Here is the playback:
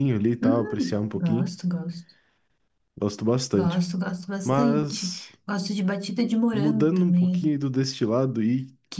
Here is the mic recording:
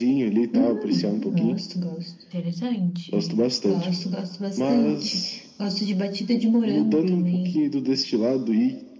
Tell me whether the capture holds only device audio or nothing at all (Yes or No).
No